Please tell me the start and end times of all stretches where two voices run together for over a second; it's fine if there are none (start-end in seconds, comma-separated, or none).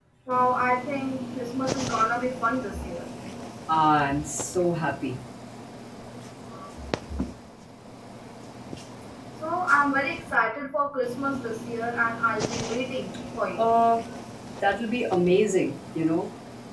none